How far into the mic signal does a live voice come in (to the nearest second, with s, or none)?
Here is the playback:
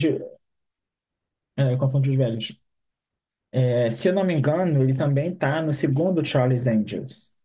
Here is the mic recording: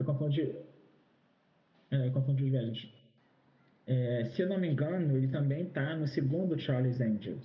none